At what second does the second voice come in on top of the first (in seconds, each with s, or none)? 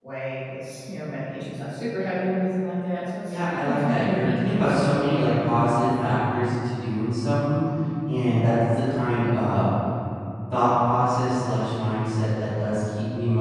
3.3 s